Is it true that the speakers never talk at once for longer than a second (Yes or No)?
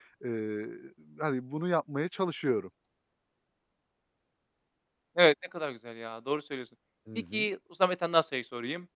Yes